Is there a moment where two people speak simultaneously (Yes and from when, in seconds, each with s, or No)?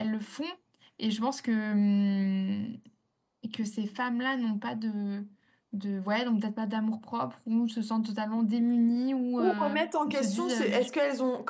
Yes, from 9.4 s